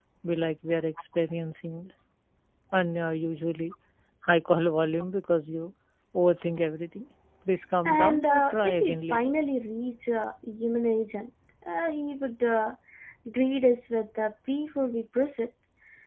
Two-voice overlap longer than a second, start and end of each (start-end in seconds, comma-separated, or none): 7.8-9.3